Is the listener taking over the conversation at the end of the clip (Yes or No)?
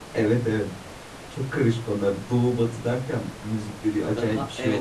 Yes